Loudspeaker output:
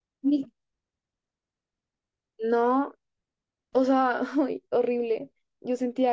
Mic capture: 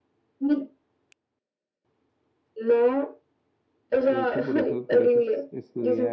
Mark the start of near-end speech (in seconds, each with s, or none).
4.1 s